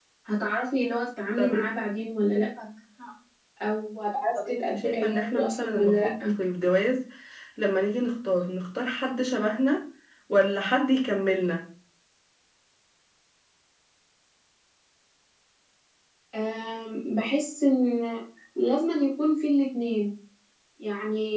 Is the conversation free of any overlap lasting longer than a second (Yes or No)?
No